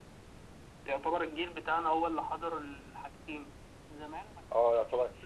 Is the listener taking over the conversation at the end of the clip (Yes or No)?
Yes